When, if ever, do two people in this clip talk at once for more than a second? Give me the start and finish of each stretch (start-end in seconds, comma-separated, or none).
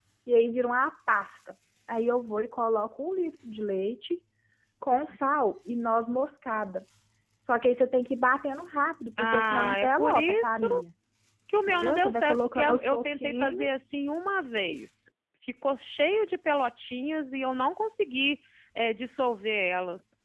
9.2-10.7, 11.7-13.7